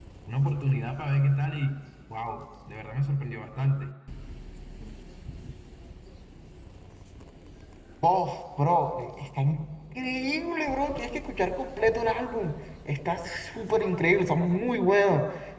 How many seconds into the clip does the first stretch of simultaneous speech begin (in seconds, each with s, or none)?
none